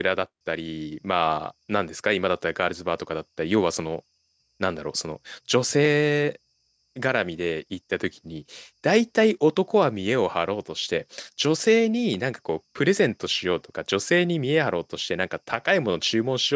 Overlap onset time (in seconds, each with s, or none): none